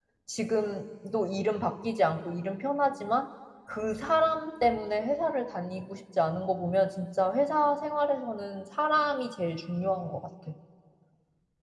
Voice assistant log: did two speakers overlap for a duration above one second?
No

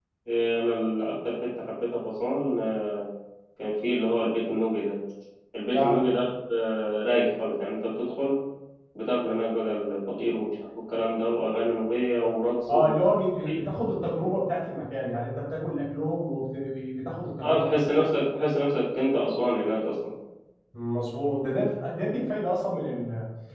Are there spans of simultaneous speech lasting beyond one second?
No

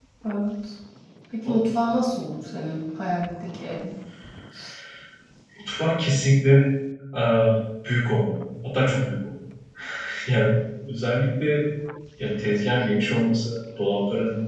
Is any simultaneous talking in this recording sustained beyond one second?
No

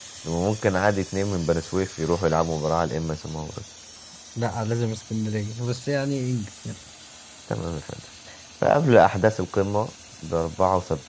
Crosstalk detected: No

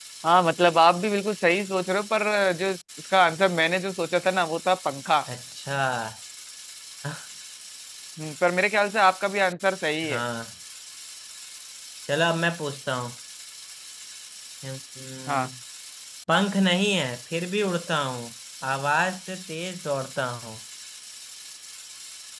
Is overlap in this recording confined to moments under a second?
Yes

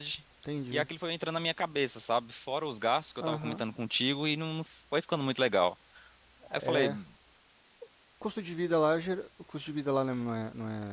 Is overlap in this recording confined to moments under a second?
Yes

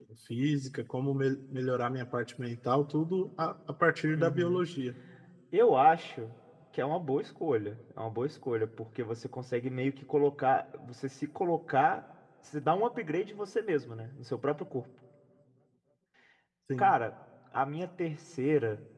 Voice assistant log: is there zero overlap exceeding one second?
Yes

